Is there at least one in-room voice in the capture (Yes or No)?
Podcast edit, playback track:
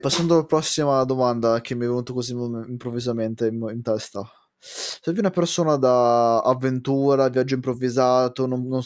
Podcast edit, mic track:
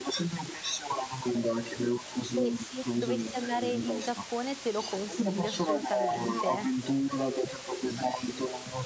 Yes